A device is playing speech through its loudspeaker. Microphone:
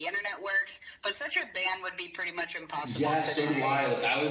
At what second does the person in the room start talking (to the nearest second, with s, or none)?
3 s